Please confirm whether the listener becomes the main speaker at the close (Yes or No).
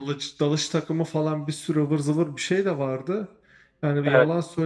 No